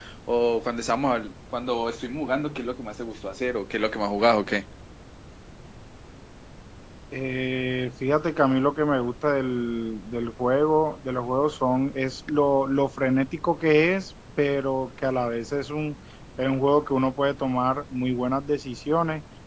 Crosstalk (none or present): none